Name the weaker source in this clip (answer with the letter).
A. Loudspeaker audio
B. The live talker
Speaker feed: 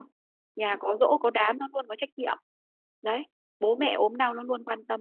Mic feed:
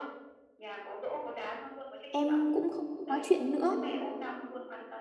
A